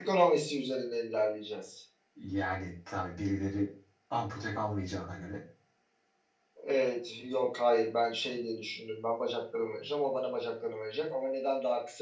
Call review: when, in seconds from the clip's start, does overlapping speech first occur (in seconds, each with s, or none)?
none